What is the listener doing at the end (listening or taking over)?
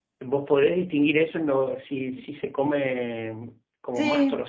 listening